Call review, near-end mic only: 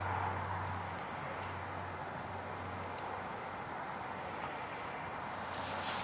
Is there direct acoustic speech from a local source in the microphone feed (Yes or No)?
No